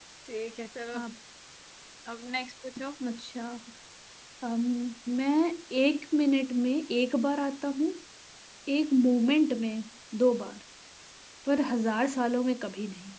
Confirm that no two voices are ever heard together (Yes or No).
Yes